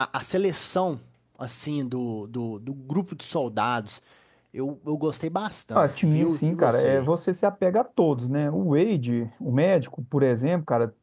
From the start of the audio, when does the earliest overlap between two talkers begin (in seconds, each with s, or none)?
5.8 s